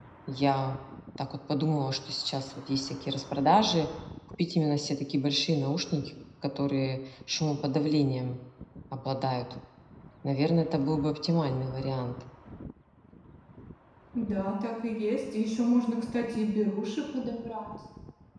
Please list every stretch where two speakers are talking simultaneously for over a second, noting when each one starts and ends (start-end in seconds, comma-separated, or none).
none